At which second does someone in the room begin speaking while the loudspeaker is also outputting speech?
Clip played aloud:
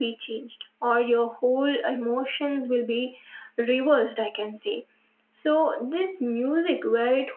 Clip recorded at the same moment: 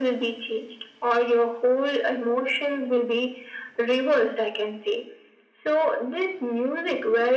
none

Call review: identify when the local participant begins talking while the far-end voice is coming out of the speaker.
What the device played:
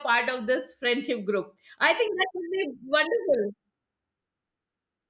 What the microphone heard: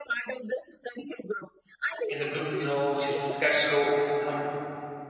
2.1 s

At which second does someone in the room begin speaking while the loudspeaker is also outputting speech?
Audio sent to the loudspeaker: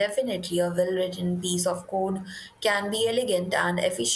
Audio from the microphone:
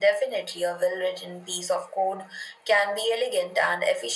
none

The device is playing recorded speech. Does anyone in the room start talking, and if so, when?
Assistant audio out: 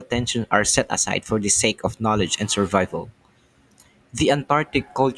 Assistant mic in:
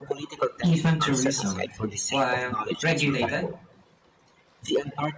0.6 s

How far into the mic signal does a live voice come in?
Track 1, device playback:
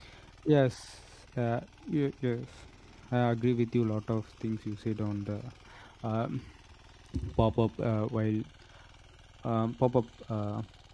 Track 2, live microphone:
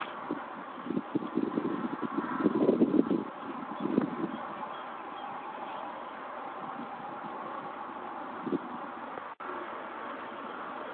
none

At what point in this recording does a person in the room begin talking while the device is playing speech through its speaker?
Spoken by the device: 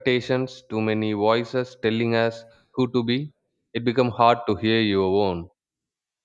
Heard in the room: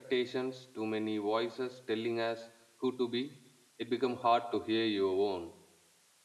none

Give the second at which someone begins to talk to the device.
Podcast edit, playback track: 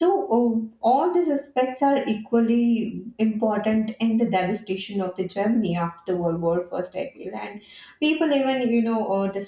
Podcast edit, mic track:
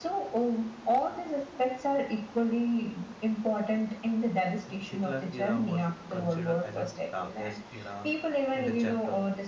4.6 s

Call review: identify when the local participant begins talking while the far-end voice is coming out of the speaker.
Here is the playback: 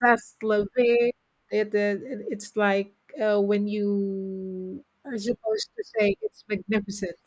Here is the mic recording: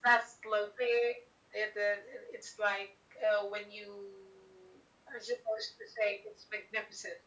none

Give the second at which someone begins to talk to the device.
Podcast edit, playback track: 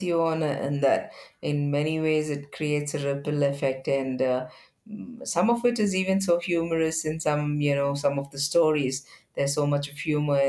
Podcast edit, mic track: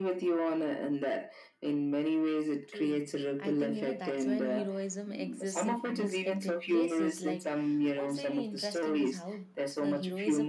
2.6 s

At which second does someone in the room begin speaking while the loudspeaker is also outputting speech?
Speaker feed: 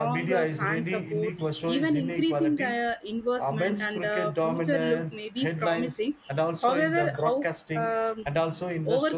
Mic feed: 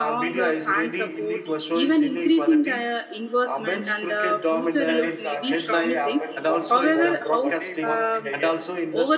4.7 s

